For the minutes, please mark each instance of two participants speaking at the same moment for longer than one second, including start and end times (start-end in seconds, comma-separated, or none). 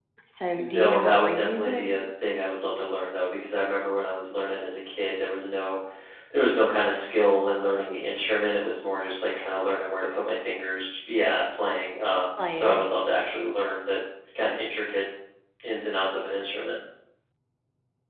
0.6-1.9